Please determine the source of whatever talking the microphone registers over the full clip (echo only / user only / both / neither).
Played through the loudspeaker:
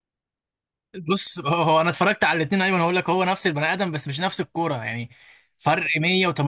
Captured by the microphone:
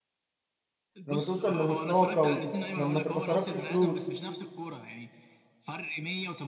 both